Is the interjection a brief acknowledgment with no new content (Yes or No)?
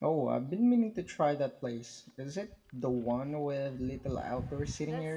No